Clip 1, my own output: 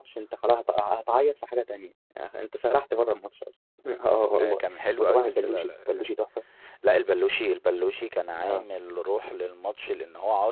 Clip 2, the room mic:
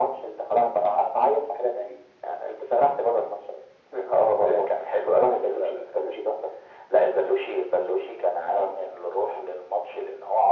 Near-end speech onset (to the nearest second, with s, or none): none